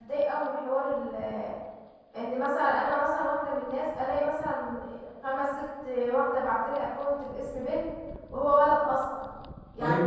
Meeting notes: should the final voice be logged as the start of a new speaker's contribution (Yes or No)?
No